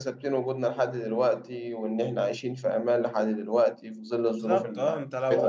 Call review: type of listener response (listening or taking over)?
taking over